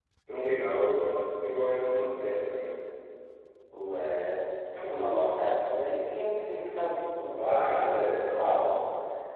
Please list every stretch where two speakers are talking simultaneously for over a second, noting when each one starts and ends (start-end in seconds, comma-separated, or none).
7.4-8.7